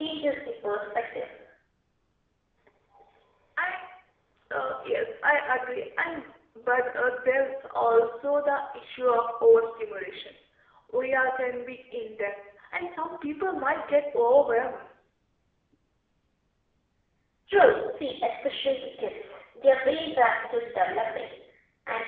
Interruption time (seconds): none

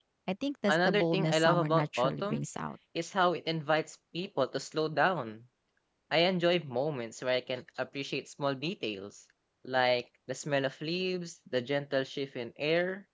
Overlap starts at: 0.7 s

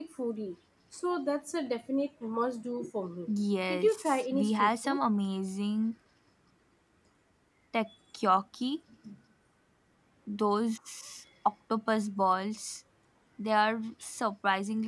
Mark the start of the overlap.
3.7 s

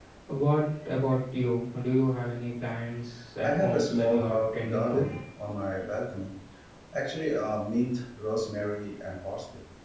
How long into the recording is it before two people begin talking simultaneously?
3.4 s

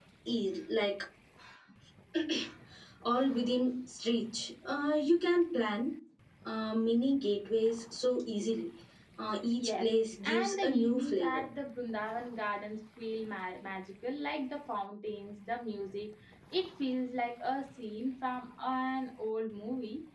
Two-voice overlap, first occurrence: 9.6 s

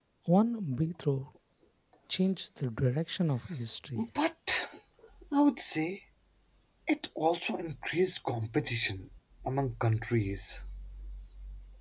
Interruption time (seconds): none

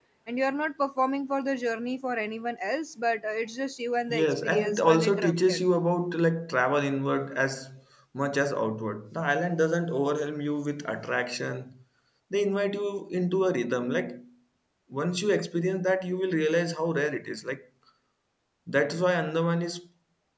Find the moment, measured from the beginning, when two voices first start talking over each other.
4.1 s

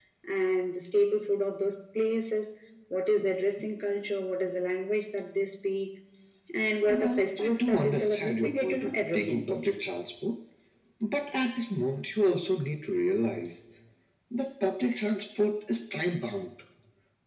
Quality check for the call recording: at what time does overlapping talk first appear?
6.8 s

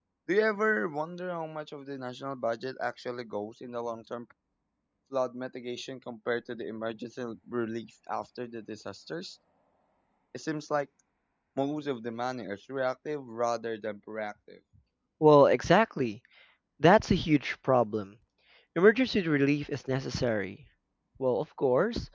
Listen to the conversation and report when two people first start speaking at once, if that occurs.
none

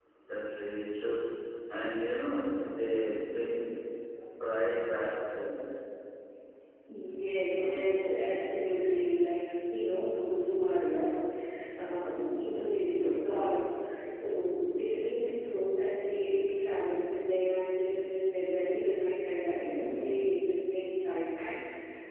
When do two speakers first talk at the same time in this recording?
none

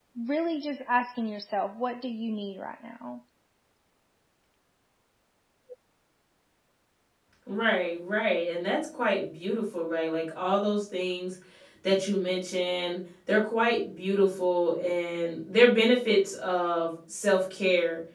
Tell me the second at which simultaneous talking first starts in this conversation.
none

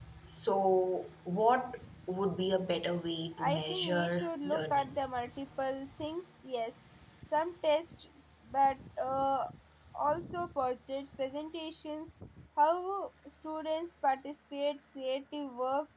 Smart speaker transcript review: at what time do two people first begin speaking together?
3.4 s

